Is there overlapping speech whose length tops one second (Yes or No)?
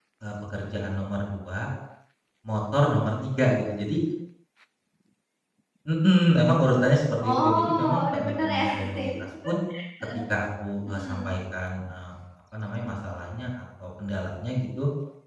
Yes